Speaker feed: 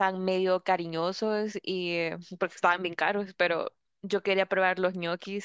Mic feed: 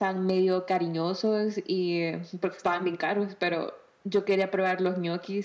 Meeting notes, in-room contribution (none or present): none